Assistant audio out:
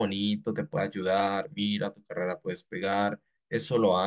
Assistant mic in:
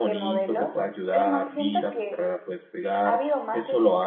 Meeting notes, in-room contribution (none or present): present